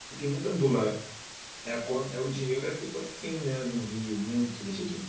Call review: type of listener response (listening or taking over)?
listening